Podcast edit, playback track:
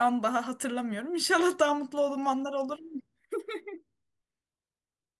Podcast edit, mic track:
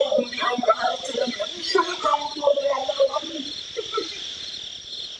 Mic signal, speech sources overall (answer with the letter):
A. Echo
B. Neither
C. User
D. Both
A